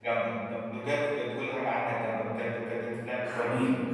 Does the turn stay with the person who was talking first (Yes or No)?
No